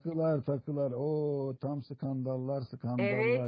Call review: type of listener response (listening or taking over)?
taking over